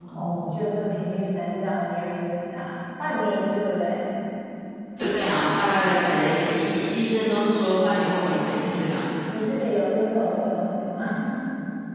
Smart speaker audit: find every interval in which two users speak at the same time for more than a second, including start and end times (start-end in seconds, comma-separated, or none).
none